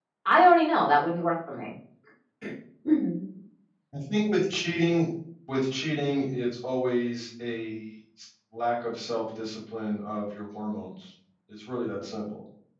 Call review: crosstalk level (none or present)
none